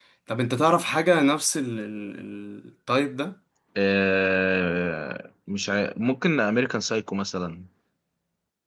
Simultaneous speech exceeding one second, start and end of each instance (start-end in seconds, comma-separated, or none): none